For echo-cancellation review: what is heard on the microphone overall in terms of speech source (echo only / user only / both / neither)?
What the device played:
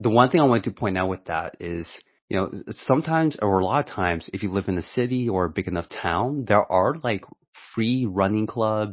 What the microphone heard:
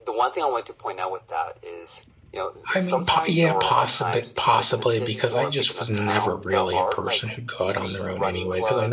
both